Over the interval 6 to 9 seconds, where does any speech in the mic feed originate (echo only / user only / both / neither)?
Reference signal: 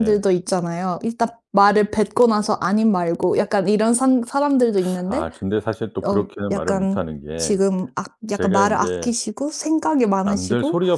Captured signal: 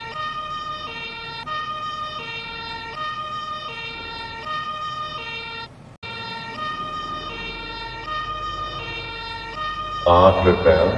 neither